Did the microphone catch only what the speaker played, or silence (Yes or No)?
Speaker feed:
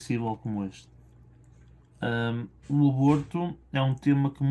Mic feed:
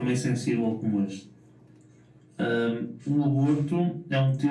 Yes